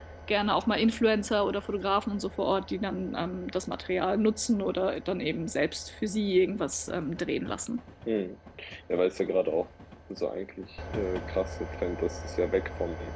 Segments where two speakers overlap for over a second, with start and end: none

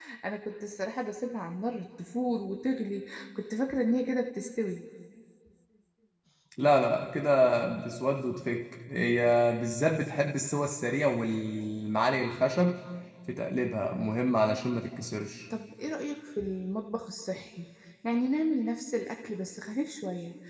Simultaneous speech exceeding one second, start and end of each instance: none

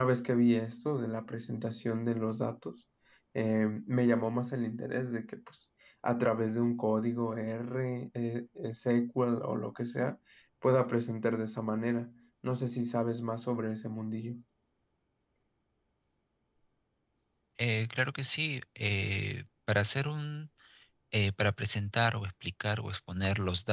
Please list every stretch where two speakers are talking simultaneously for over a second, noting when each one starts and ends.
none

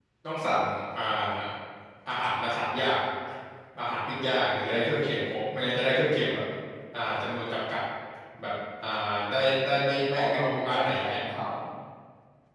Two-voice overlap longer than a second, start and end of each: 10.0-11.2

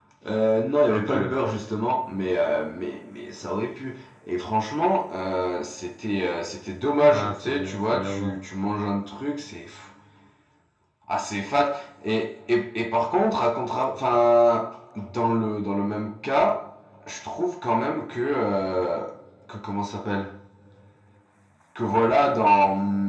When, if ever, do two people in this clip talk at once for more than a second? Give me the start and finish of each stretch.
7.1-8.4

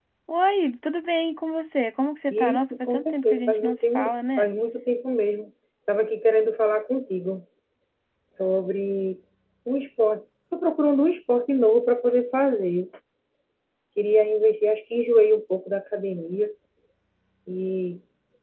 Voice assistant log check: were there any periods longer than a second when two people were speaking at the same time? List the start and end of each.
2.3-4.5

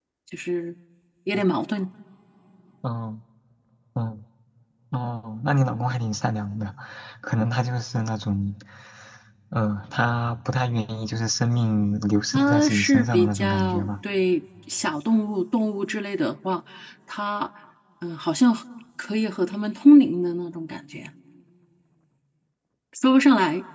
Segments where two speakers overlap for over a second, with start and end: 12.3-13.9

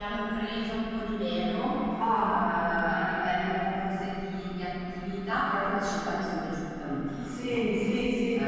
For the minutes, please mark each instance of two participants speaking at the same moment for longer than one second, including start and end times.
none

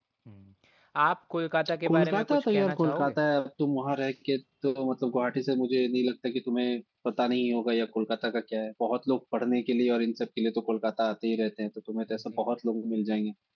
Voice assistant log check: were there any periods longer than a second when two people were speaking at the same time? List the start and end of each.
1.9-3.1

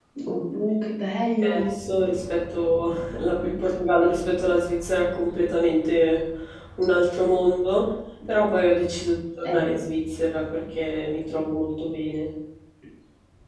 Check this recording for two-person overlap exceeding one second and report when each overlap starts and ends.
none

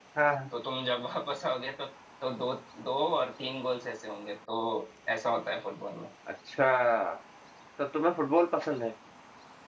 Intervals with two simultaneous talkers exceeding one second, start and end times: none

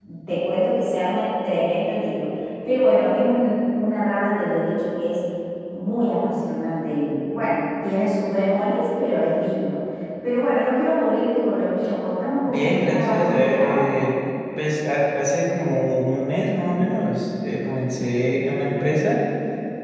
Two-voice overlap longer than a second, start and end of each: 12.4-14.0

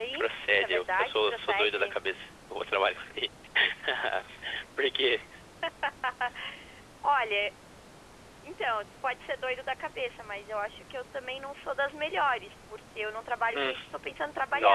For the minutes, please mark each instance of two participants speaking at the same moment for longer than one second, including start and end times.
0.6-2.0

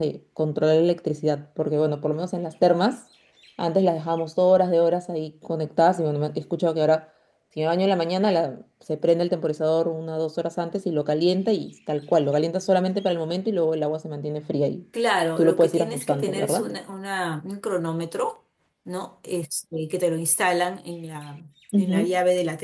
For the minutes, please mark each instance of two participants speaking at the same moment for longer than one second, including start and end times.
15.4-16.7

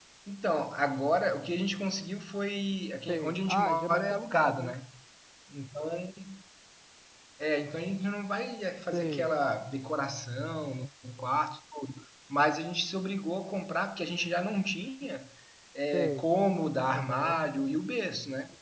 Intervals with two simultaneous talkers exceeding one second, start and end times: 3.1-4.7

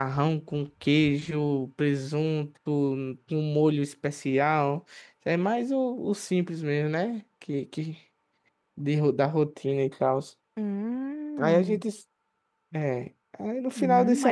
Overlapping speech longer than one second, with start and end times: none

